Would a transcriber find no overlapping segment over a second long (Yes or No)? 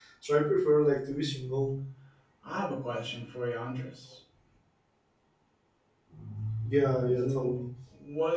Yes